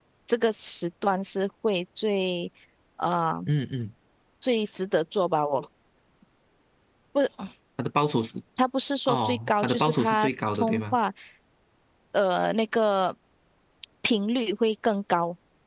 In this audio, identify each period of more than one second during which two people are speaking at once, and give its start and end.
9.1-11.0

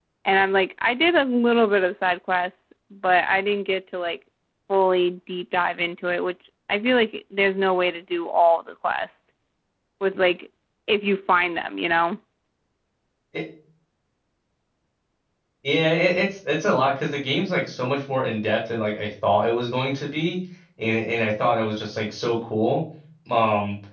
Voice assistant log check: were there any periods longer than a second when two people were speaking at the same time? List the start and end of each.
none

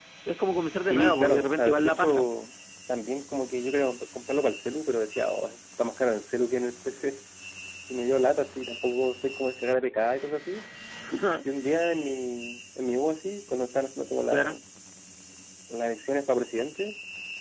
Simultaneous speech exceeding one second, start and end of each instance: 0.9-2.3

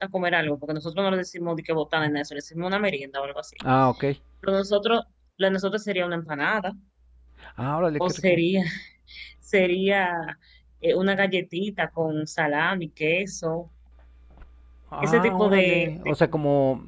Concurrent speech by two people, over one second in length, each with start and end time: 15.0-16.4

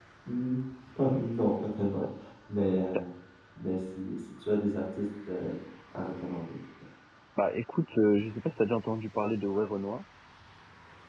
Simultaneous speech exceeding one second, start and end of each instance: none

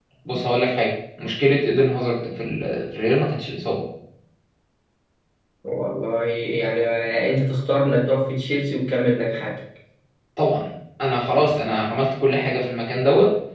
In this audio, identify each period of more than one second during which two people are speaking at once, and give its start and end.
none

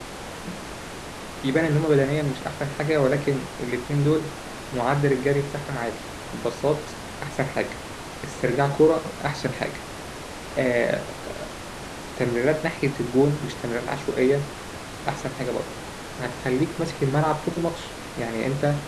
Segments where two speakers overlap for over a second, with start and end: none

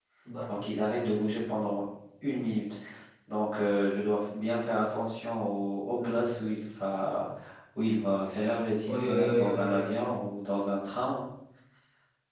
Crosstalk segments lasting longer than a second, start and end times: 8.9-10.2

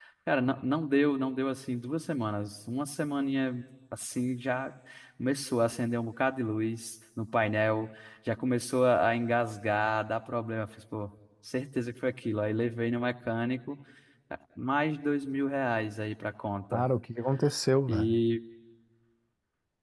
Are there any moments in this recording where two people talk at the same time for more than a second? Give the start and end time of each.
none

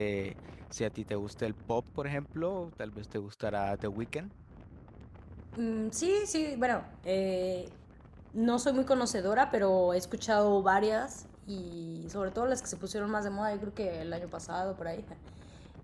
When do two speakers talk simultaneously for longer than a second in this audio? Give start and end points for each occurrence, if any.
none

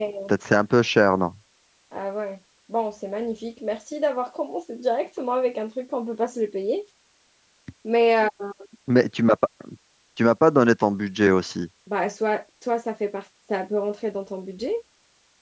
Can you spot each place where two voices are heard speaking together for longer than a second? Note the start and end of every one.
none

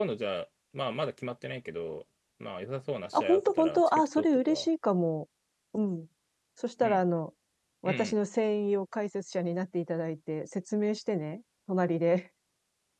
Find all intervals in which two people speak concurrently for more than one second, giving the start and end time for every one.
3.1-4.7

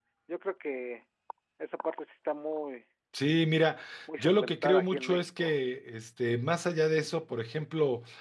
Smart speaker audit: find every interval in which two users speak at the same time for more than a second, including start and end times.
4.2-5.5

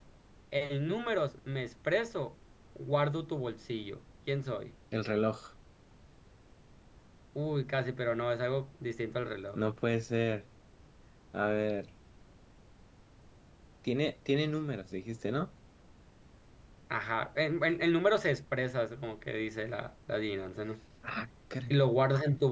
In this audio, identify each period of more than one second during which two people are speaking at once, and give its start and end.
none

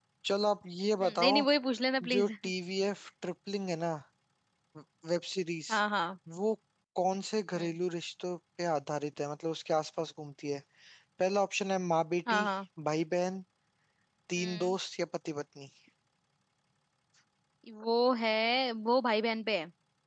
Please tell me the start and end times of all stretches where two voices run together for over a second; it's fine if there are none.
none

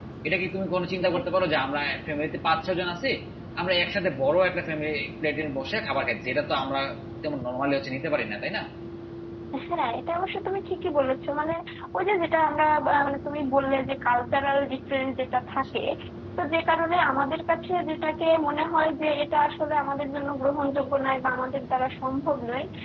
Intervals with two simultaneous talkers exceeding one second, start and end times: none

